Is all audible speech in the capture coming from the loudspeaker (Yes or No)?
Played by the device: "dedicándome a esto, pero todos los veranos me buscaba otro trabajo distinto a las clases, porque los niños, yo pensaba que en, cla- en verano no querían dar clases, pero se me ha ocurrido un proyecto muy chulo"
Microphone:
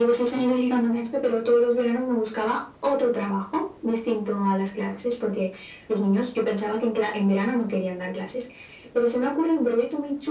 Yes